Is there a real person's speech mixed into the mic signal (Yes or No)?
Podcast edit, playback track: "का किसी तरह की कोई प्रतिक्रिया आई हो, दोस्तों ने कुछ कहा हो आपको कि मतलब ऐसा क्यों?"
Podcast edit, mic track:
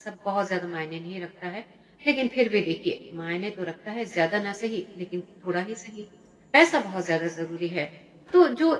Yes